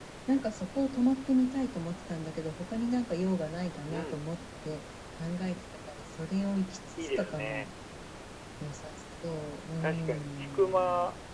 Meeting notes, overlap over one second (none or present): present